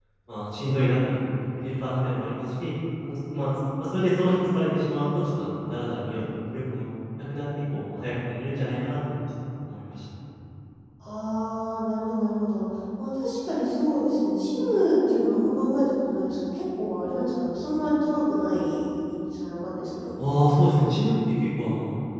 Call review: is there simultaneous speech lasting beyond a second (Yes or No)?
No